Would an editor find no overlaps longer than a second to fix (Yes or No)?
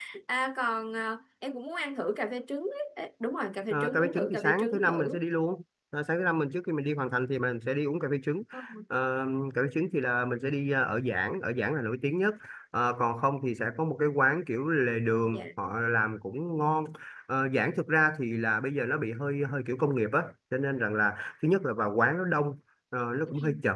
No